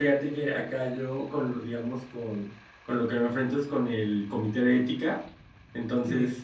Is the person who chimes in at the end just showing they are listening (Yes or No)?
Yes